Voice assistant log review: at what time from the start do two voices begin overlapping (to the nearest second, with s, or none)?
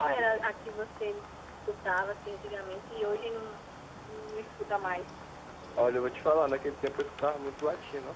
none